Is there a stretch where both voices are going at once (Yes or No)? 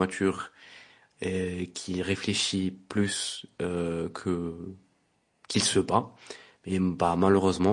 No